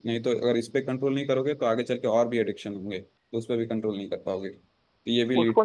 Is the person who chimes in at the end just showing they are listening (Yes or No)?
No